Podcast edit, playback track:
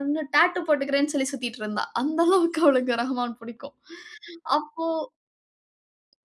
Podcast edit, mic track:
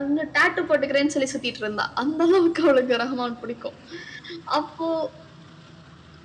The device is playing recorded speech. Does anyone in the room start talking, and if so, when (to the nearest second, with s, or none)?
none